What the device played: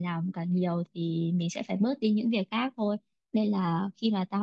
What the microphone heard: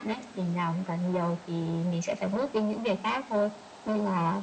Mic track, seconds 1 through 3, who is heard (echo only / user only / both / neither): echo only